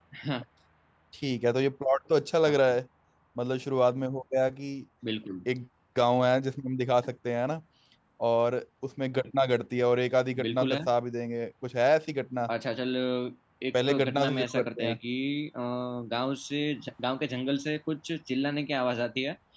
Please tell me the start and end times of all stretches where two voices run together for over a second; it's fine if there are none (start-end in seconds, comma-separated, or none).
13.7-15.0